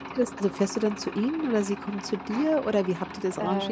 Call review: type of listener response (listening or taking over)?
taking over